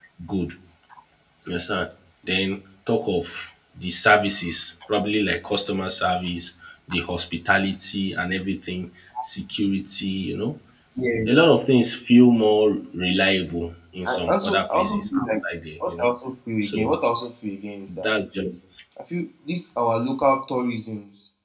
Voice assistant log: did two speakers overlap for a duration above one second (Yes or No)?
Yes